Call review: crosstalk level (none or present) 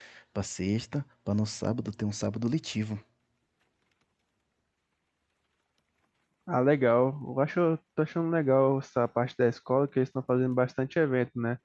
none